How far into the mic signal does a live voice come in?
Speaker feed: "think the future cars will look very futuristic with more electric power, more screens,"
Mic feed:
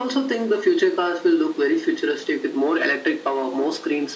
none

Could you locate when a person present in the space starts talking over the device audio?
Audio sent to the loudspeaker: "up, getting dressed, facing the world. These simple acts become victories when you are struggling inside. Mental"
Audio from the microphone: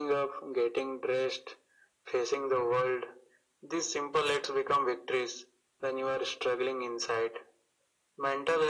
none

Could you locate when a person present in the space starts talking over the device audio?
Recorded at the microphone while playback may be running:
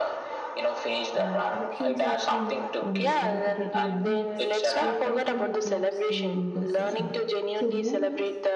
1.2 s

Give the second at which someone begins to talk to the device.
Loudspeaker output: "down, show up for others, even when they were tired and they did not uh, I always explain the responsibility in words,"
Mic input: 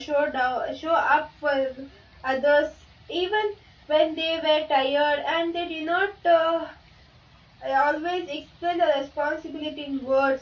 none

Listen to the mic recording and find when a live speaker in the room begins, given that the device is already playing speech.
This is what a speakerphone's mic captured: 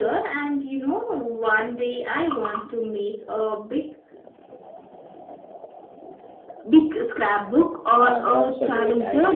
8.0 s

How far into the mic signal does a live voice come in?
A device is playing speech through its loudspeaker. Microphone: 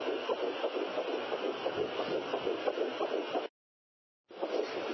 none

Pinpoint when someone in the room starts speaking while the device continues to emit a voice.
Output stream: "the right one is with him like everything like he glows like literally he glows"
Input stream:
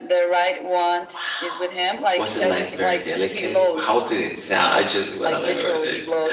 1.0 s

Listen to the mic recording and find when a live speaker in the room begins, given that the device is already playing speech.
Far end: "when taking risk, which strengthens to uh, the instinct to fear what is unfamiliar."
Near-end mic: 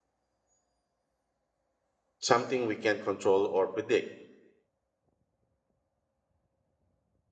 2.2 s

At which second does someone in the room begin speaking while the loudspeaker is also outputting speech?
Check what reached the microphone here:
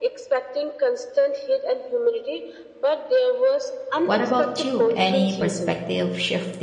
4.0 s

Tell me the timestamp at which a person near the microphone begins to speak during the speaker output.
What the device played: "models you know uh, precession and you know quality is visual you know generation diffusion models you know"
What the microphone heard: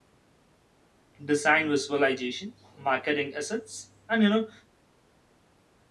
1.2 s

